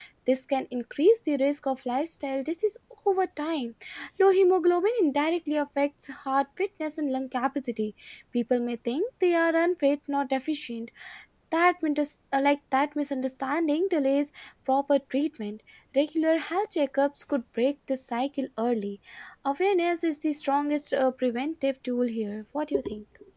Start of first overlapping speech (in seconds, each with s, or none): none